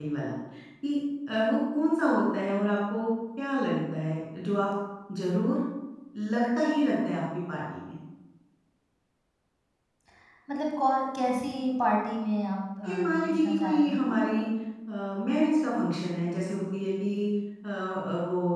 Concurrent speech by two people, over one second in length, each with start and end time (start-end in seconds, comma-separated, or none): 12.8-14.4